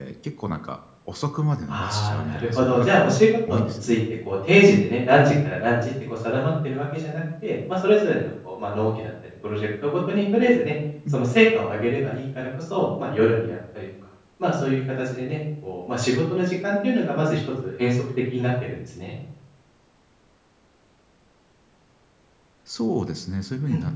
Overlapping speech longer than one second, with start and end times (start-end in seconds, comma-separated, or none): 1.7-3.0